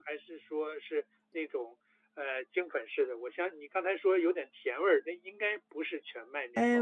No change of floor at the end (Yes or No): No